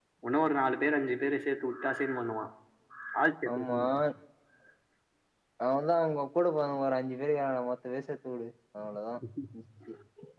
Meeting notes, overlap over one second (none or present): none